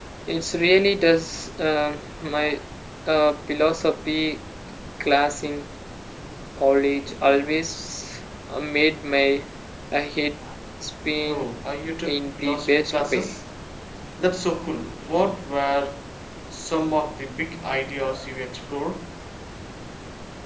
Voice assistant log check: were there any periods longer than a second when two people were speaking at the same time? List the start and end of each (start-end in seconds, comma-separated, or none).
12.1-13.3